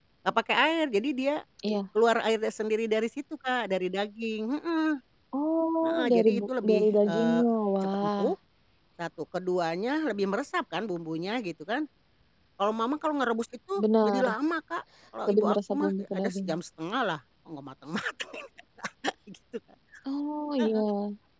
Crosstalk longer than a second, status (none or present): present